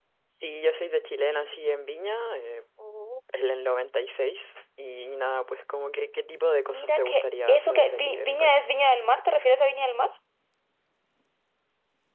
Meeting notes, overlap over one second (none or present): present